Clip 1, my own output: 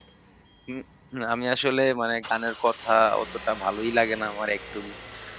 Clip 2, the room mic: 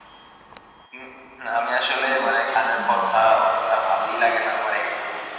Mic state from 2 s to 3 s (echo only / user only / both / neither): both